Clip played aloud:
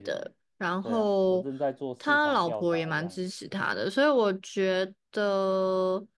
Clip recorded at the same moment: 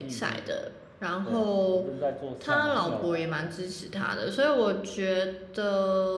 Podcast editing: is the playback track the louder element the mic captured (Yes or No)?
Yes